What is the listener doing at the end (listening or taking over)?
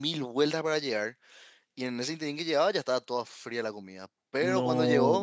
listening